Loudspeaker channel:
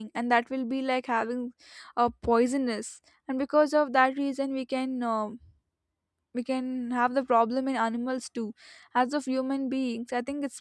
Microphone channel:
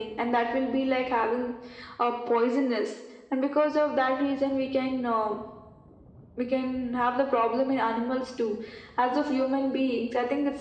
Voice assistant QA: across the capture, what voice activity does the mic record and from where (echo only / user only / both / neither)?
echo only